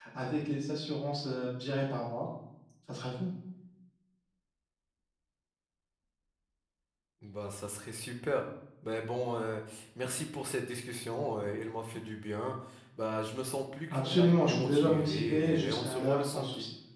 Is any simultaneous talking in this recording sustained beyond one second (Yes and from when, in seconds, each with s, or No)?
Yes, from 13.9 s